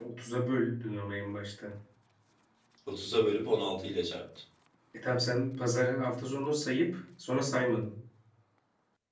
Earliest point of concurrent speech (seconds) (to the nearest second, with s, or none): none